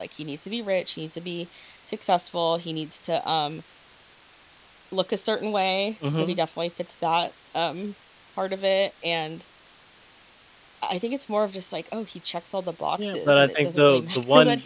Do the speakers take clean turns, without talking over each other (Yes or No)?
No